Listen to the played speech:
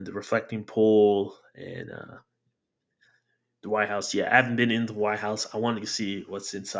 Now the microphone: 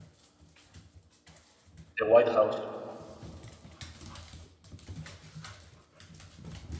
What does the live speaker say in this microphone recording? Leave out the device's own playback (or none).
the White House.